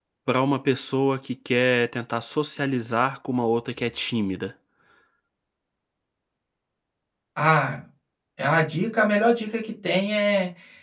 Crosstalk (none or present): none